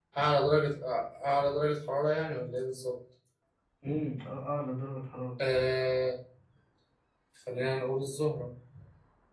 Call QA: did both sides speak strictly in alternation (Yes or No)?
Yes